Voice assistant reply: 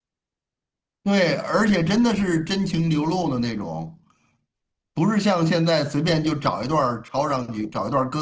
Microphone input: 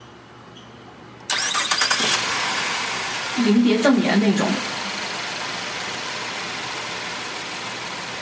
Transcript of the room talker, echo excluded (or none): 临别赠言那种。